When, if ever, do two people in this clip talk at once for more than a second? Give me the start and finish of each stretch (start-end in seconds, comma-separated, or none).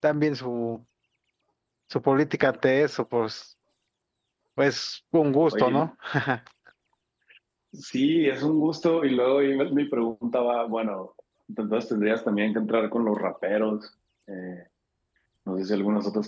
none